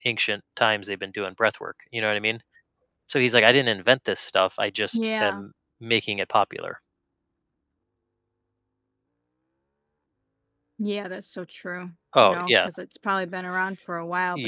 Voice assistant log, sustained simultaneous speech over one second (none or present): none